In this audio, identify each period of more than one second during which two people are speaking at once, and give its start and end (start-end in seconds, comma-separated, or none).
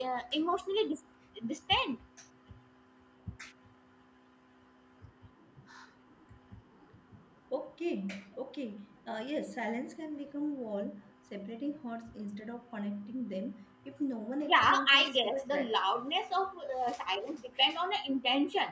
14.4-15.8